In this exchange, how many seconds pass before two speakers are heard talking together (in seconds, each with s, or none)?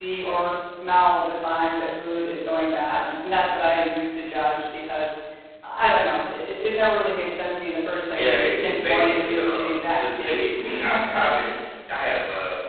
8.1 s